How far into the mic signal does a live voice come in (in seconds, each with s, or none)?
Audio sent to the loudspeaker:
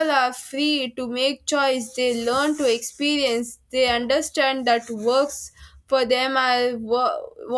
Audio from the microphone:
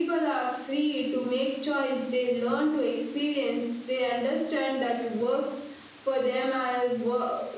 none